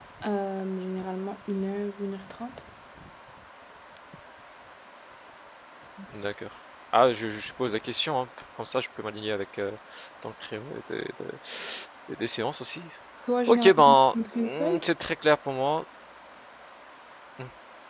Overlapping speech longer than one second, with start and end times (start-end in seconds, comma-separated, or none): 13.5-14.8